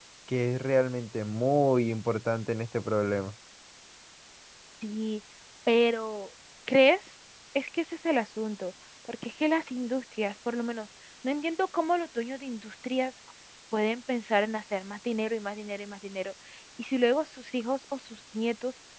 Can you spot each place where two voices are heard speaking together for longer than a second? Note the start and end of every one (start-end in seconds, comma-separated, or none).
none